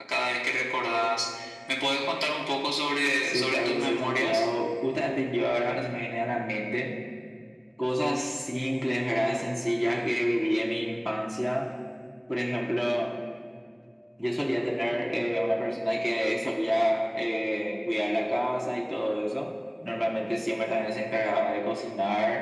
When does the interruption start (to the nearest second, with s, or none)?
3 s